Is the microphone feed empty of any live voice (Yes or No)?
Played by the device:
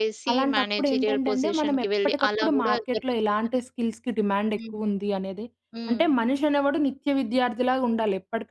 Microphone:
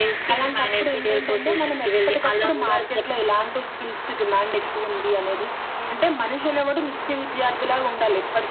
Yes